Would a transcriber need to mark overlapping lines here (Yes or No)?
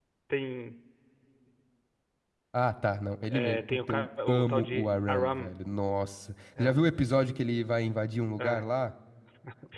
Yes